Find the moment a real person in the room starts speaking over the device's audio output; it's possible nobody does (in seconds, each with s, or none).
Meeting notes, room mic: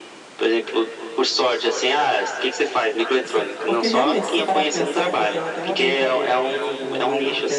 3.2 s